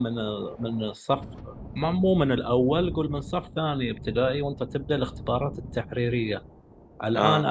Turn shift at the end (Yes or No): No